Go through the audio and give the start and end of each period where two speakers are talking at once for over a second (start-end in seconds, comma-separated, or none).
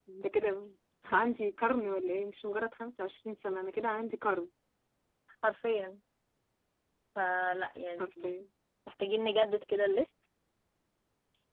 none